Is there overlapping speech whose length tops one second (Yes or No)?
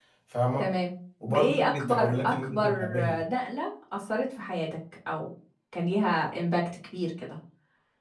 Yes